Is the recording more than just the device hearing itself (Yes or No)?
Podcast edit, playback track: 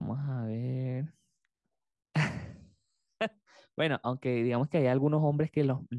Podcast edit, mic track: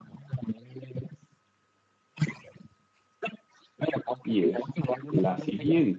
Yes